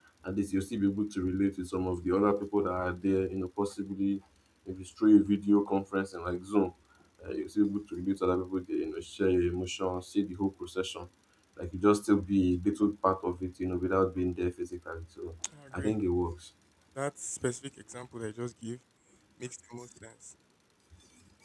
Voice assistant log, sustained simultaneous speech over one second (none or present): none